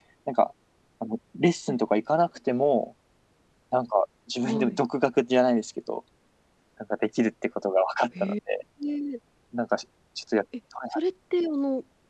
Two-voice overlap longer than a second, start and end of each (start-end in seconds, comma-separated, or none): none